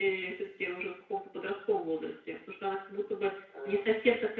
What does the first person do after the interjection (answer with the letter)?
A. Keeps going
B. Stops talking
A